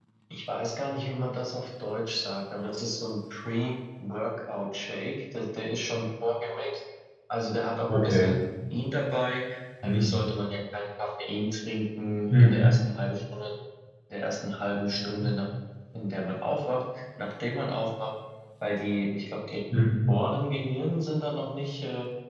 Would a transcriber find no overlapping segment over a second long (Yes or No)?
Yes